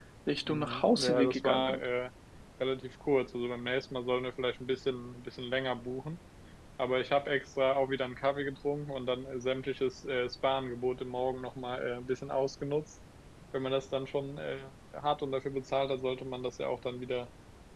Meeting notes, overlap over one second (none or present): present